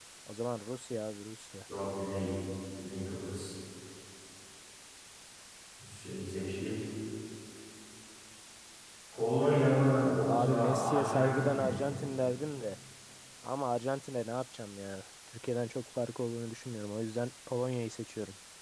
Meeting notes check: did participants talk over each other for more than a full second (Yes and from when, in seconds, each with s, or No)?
Yes, from 10.3 s